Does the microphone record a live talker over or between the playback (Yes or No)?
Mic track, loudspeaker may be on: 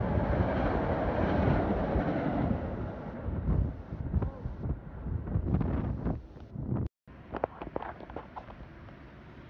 No